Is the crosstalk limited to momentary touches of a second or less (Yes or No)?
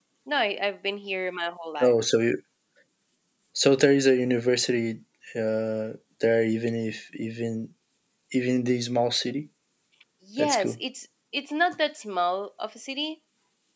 Yes